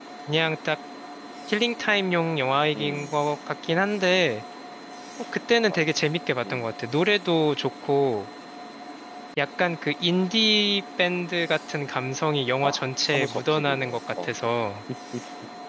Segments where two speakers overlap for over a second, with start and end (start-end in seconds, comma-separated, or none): 12.6-14.3